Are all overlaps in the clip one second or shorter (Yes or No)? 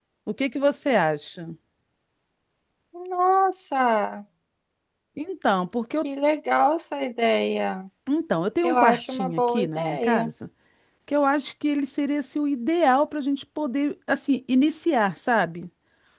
No